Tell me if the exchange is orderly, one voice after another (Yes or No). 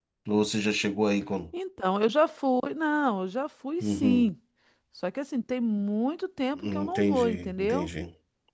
No